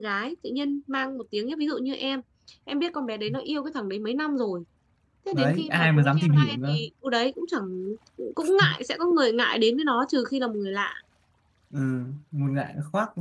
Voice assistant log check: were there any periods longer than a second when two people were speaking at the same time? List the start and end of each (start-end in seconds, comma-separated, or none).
5.3-6.8